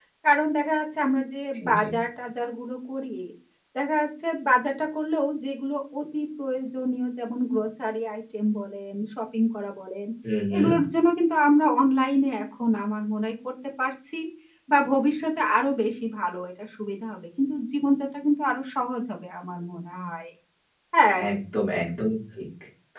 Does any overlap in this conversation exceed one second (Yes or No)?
No